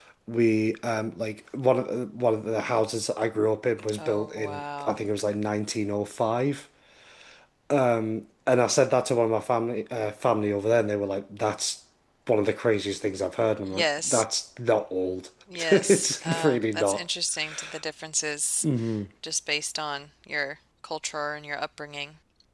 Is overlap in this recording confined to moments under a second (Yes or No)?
No